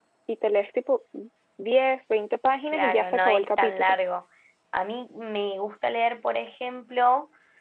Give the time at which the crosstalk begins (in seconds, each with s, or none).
2.7 s